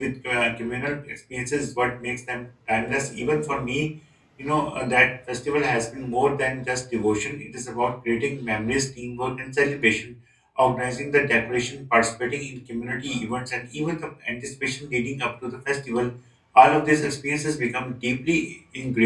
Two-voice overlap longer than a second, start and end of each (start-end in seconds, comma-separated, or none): none